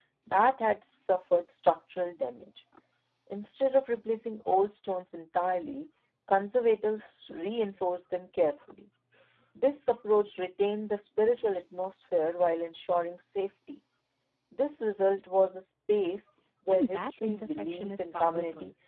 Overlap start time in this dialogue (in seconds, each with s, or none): 16.7 s